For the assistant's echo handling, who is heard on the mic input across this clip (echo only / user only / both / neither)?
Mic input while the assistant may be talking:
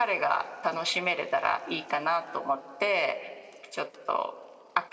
echo only